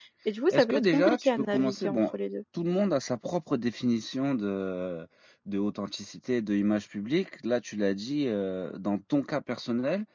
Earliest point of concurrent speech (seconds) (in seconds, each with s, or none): 0.5 s